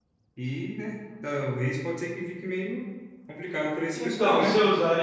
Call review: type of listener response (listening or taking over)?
taking over